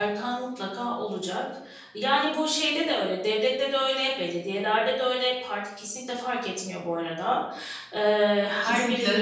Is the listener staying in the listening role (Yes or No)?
Yes